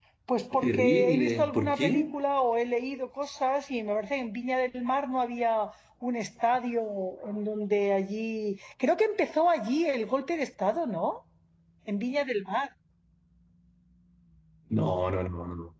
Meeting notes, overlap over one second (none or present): present